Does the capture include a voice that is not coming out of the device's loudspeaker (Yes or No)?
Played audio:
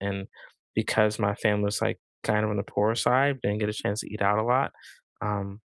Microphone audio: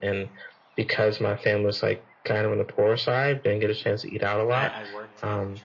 Yes